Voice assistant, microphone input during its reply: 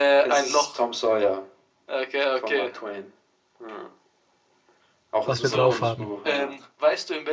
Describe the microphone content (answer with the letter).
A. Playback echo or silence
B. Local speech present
B